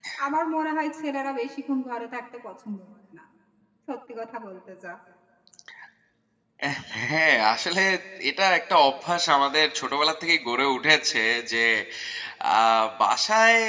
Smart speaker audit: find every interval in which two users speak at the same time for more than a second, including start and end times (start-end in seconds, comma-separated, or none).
none